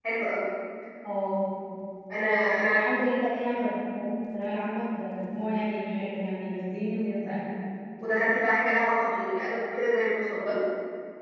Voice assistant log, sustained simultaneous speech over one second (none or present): none